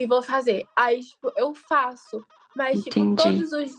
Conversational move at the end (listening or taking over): listening